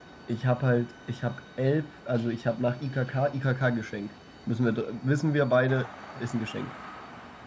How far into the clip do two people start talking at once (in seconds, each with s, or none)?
none